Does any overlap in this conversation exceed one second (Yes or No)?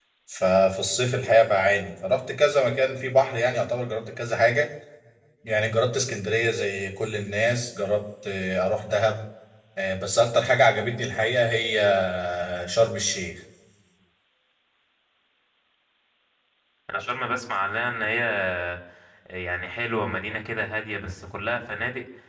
No